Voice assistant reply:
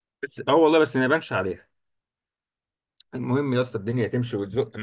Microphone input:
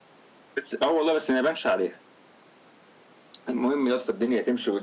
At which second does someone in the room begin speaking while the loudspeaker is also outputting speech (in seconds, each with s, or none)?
none